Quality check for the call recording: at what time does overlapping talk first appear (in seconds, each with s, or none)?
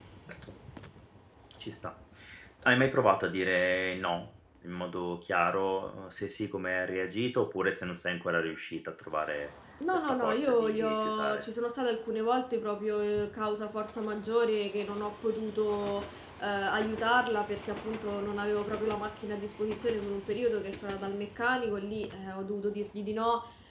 9.8 s